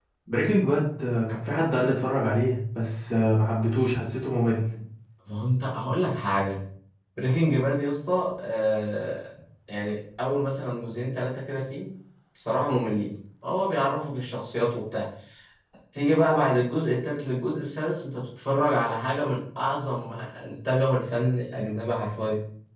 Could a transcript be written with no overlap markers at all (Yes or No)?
Yes